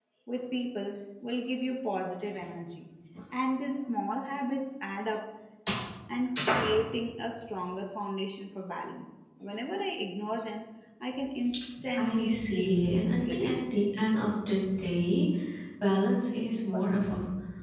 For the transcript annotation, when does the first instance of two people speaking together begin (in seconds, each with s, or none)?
12.0 s